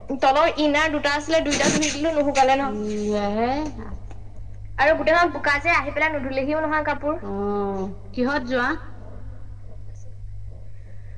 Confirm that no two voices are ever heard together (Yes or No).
Yes